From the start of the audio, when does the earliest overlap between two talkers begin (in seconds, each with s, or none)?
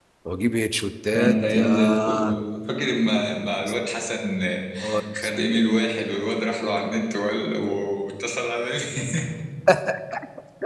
1.1 s